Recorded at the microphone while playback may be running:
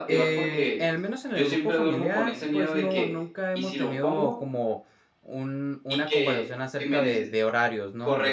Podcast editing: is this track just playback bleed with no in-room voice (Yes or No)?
No